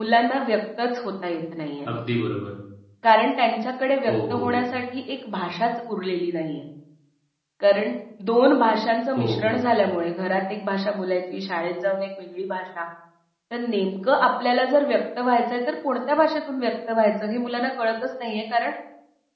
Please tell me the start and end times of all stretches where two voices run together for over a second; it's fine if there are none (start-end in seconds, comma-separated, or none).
none